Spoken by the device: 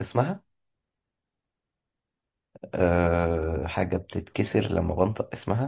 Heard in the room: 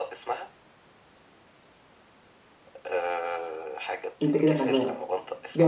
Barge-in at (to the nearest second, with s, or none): 4 s